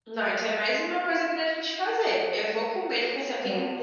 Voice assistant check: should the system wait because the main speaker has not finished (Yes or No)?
Yes